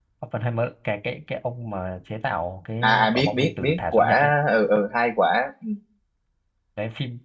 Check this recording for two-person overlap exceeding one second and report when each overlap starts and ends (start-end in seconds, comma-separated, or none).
2.8-4.3